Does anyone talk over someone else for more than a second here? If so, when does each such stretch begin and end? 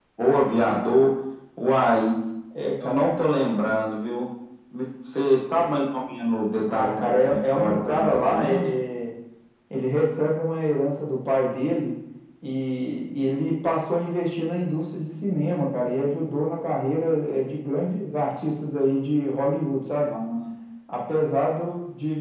6.6-8.7

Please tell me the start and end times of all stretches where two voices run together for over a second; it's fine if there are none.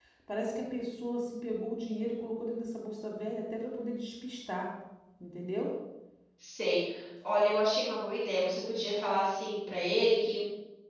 none

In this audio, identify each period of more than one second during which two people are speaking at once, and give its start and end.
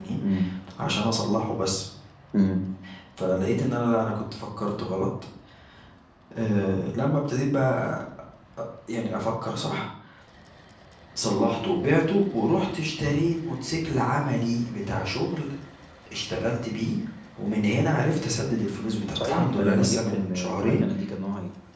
19.1-20.9

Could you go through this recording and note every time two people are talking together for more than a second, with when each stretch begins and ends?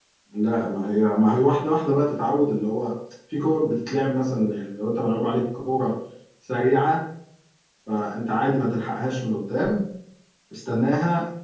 none

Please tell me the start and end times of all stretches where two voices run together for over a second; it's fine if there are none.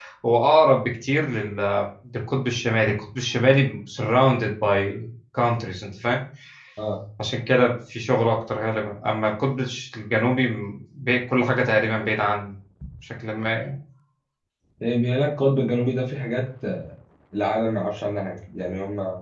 none

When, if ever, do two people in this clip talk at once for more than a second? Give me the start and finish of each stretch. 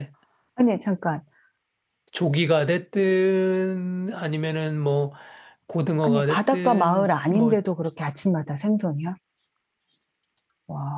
6.0-7.6

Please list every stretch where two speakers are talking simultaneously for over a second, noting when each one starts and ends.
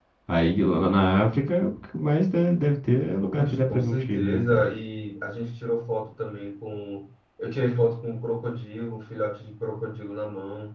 3.2-4.7

